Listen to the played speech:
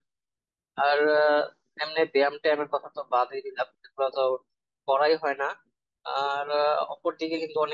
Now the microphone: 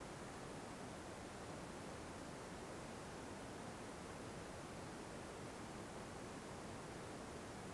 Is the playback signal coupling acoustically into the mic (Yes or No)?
No